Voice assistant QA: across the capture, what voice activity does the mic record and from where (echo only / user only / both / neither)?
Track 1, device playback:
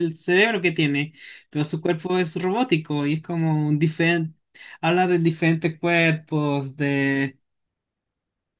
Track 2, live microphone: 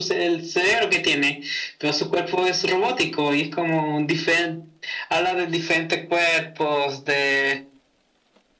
echo only